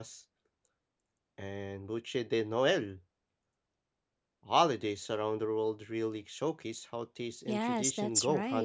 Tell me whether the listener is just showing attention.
No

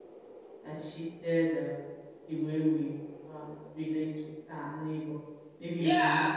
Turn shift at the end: Yes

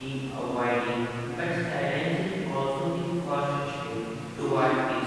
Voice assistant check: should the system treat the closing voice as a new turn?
No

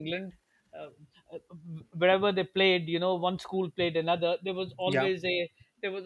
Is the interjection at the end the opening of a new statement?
No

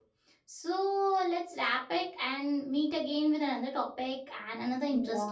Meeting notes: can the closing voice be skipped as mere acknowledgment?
No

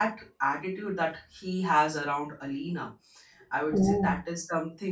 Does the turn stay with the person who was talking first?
Yes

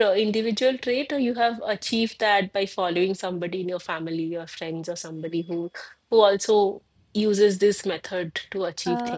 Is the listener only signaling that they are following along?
No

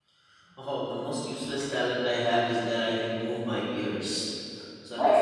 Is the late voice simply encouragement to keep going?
Yes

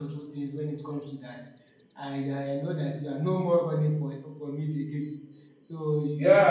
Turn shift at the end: Yes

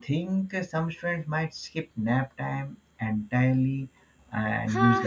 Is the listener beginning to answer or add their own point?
Yes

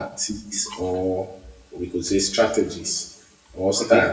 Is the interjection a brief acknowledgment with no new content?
Yes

